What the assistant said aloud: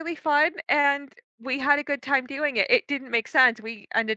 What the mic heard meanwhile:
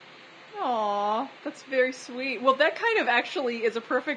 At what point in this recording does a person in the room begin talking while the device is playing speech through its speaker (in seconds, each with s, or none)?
0.6 s